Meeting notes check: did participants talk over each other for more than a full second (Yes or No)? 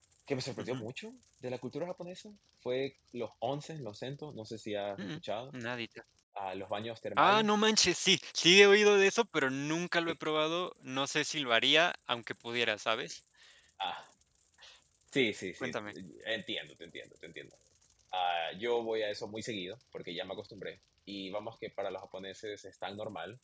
No